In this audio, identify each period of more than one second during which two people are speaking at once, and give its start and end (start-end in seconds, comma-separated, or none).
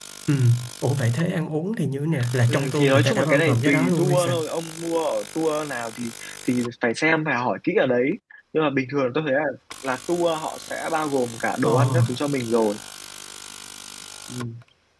2.5-4.3